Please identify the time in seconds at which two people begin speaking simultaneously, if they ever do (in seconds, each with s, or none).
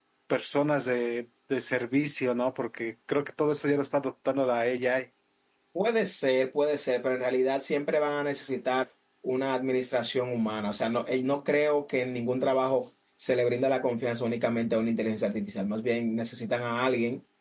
none